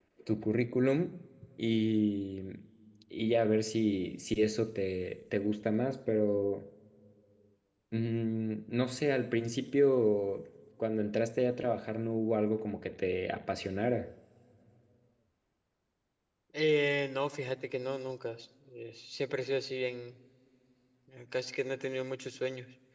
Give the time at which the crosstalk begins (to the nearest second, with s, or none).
none